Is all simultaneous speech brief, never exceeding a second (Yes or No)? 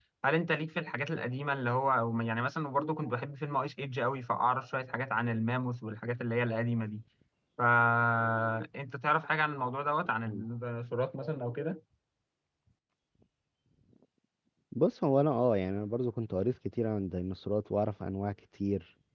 Yes